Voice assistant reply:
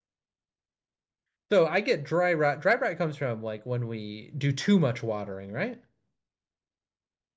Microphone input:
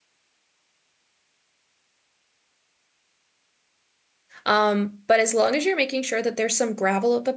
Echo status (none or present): none